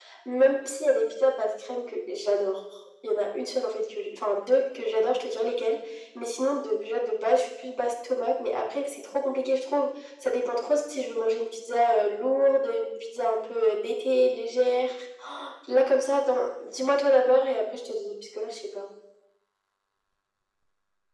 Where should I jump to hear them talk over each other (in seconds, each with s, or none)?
none